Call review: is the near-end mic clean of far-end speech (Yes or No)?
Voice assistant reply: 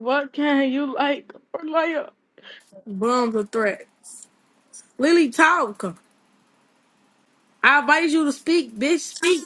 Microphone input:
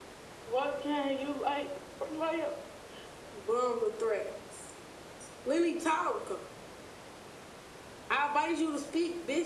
No